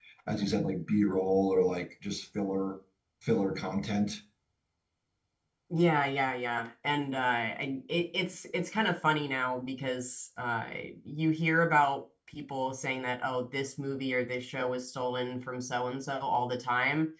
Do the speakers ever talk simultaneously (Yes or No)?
No